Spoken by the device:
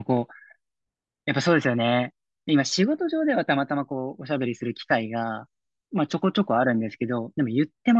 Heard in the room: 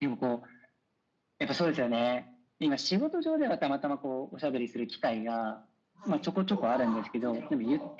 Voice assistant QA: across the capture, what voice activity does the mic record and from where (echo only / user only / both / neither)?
both